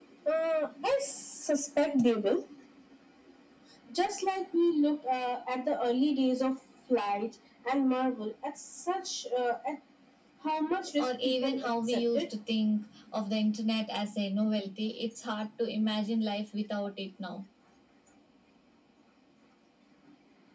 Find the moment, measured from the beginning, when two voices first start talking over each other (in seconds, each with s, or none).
11.0 s